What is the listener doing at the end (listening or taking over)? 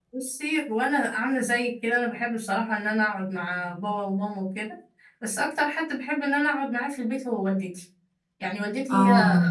listening